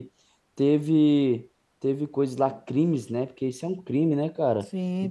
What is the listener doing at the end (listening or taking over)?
taking over